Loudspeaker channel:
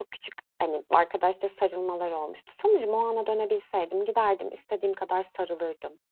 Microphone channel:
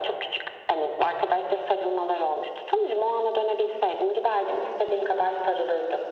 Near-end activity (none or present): none